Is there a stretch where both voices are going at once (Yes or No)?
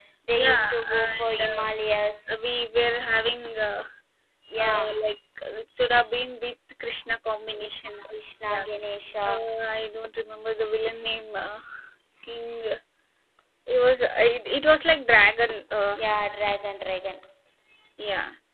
Yes